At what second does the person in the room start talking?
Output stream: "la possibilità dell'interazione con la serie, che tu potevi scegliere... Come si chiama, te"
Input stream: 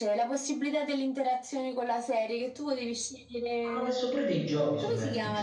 3.6 s

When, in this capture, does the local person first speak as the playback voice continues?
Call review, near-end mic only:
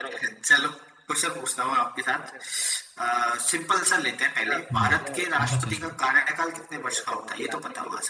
4.7 s

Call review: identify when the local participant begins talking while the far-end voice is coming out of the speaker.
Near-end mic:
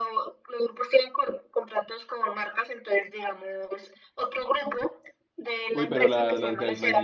5.7 s

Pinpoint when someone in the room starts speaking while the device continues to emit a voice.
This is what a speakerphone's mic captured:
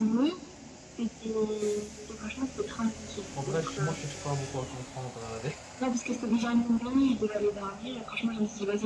3.3 s

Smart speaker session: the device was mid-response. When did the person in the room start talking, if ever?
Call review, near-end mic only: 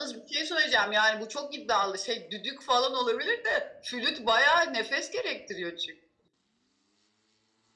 none

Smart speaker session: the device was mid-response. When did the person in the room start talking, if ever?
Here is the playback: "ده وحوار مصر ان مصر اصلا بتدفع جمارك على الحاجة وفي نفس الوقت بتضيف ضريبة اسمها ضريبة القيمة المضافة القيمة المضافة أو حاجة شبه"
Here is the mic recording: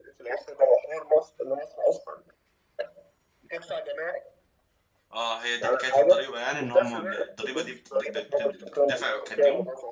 5.1 s

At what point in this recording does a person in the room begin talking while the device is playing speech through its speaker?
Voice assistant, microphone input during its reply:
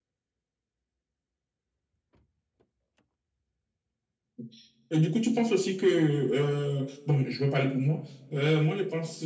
none

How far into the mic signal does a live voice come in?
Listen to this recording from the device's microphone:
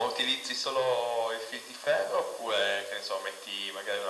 none

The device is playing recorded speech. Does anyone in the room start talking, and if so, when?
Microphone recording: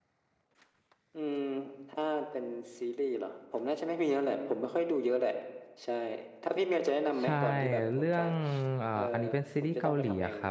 7.2 s

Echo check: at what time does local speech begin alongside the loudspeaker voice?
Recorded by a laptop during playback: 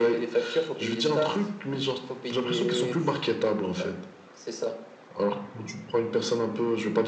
none

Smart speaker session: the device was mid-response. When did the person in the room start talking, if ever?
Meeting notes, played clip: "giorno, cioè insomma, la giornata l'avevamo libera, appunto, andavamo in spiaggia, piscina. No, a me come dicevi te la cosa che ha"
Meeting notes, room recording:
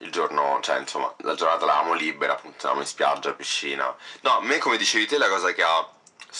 none

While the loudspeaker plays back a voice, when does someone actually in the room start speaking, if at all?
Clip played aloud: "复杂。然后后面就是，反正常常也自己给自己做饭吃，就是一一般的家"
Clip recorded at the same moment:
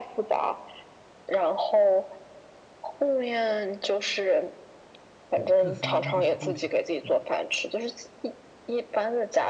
5.3 s

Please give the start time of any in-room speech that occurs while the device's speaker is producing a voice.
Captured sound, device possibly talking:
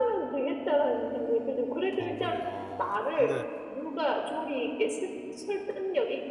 1.9 s

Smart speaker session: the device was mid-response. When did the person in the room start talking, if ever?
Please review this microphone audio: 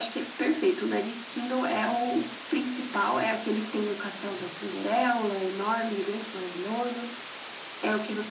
none

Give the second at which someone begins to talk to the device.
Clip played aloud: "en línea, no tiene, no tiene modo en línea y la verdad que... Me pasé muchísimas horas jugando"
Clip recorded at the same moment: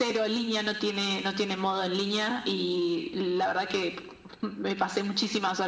none

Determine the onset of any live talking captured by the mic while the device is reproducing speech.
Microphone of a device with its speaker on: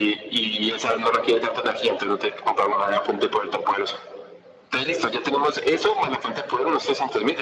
none

